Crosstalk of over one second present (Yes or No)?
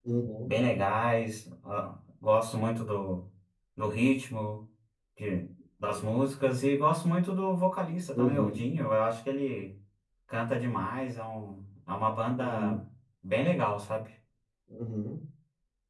No